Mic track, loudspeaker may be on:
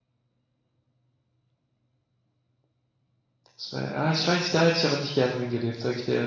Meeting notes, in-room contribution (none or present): present